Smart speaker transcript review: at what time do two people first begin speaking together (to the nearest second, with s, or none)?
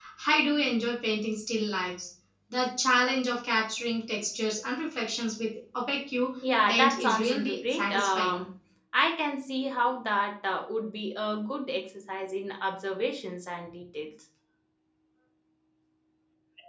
7 s